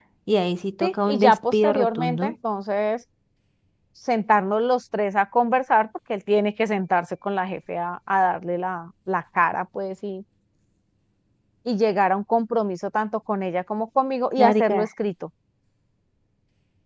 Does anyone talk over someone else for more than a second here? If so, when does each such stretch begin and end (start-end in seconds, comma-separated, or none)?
0.8-2.3